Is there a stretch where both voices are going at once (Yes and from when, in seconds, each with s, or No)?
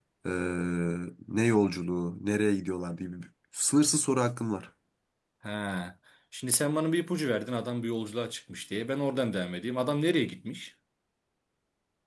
No